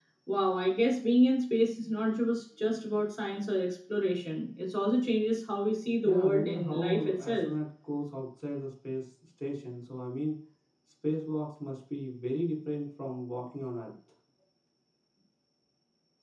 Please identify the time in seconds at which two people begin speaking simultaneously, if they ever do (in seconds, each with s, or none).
6.0 s